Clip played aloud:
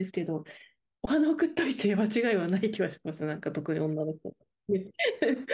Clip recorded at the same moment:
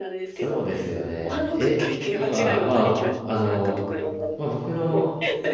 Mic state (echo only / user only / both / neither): both